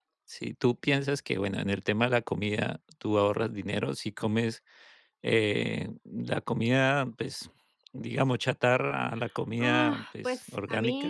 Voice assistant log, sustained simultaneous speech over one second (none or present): present